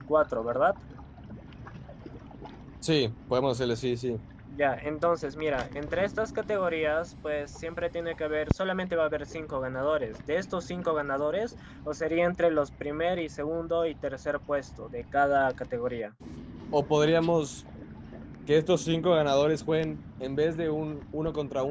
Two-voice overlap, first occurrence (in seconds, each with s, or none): none